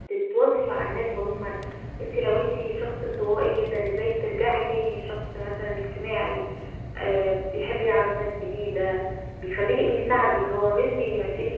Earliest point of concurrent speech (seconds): none

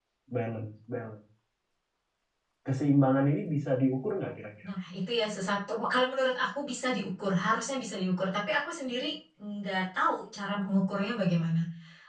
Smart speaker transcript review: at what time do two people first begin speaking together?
none

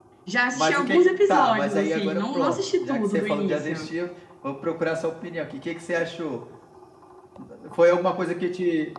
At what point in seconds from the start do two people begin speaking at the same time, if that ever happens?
0.5 s

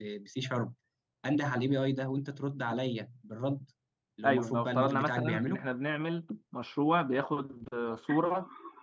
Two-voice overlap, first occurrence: 4.2 s

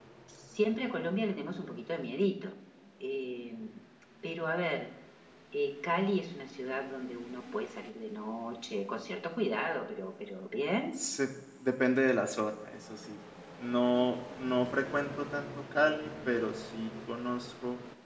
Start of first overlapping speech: none

